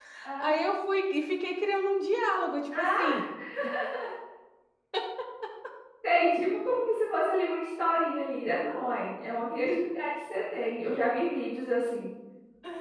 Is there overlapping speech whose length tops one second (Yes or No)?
No